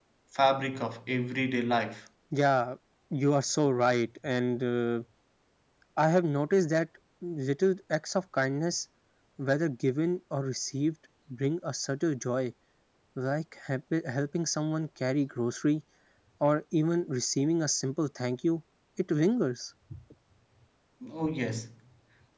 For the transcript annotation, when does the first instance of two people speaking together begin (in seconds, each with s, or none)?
none